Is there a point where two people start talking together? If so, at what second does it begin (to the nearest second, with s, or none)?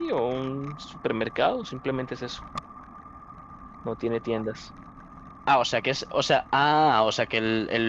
none